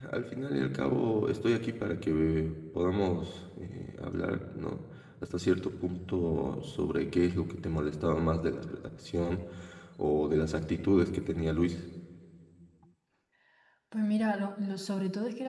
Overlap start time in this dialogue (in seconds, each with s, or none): none